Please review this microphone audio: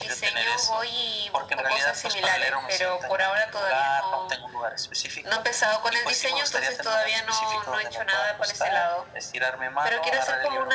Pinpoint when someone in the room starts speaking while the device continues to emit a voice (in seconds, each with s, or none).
none